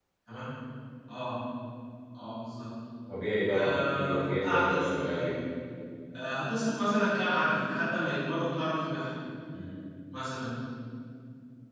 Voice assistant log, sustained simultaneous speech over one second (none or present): present